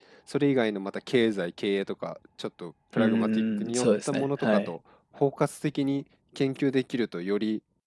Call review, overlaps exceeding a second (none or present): present